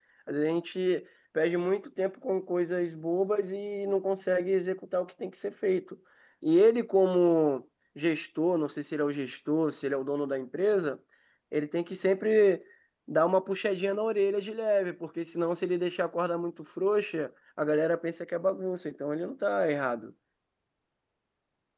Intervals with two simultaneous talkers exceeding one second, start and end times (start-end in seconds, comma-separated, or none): none